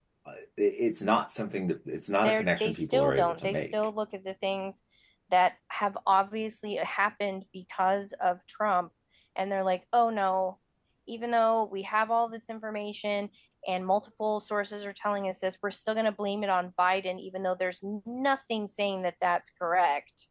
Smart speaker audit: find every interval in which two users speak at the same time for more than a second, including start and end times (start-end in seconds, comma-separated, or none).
2.2-3.7